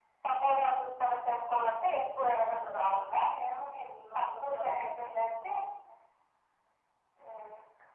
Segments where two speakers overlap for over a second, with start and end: 4.2-5.5

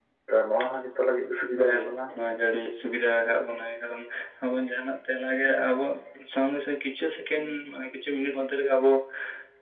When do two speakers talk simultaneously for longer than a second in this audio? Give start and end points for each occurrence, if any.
none

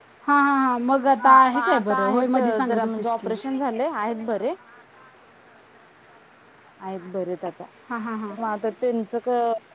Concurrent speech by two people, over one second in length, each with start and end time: 1.2-3.3

